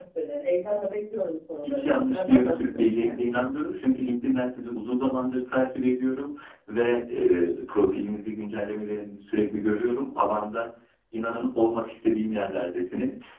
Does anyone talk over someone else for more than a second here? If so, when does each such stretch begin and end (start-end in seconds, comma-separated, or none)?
1.6-3.2